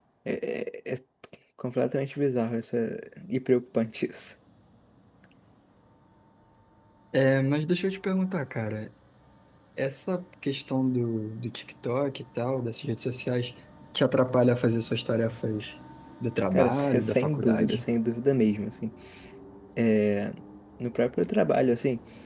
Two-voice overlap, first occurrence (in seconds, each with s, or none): 16.5 s